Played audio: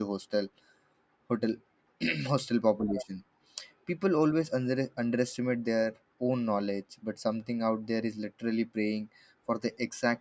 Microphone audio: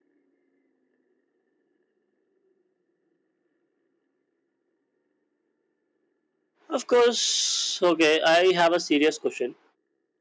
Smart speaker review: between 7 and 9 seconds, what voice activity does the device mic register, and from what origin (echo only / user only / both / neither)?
user only